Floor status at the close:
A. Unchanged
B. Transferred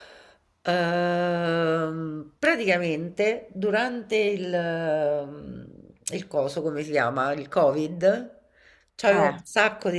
A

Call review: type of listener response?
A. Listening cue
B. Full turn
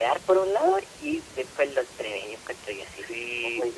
B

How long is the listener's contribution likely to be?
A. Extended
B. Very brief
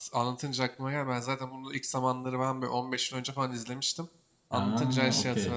B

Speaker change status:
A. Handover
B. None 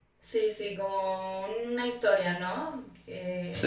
B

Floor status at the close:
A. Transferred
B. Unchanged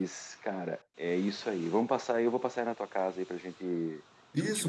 A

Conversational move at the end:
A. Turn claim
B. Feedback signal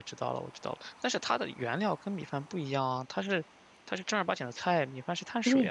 A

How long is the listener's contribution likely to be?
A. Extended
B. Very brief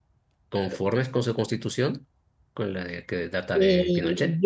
A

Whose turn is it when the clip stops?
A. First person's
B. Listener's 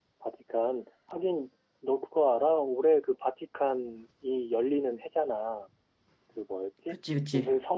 A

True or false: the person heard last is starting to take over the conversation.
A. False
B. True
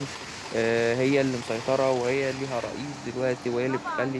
B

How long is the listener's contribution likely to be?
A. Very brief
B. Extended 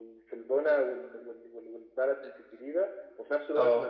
A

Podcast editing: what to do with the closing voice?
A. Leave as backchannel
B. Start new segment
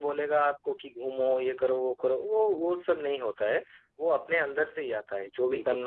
A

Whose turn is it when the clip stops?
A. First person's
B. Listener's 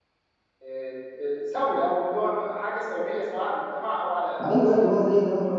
B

